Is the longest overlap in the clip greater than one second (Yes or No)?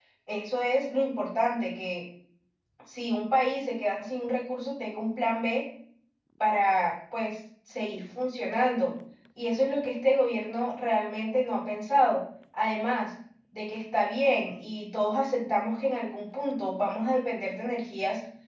No